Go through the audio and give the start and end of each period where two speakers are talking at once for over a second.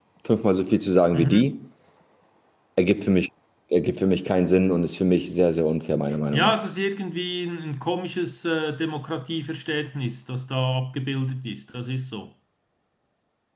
none

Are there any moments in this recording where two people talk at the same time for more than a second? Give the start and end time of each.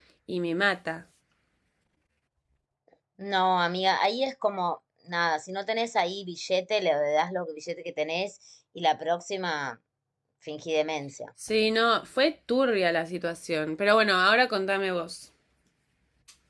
none

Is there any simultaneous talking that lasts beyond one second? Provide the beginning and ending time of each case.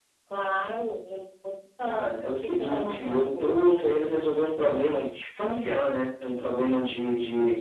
1.8-3.8

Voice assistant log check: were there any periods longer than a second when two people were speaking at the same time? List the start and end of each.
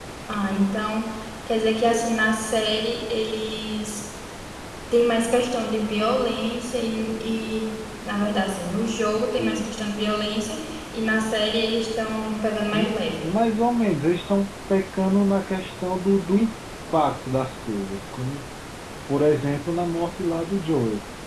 none

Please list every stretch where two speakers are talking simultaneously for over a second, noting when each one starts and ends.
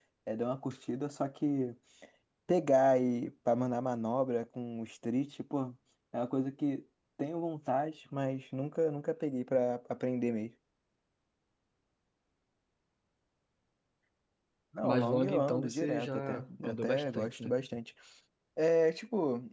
14.8-17.5

